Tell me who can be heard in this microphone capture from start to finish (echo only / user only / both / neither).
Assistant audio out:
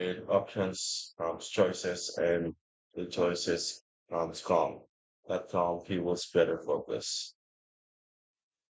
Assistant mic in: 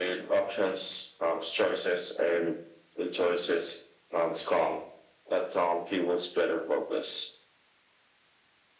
echo only